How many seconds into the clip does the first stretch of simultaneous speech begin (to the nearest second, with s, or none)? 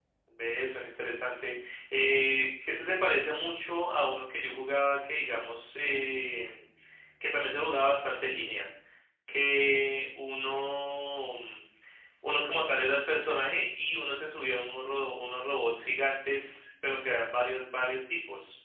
none